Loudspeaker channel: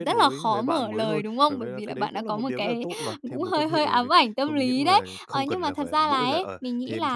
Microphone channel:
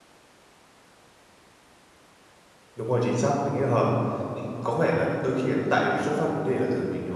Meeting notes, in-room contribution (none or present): present